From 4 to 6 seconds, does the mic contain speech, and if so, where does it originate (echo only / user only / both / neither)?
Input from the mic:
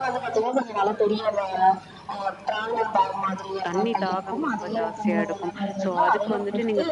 both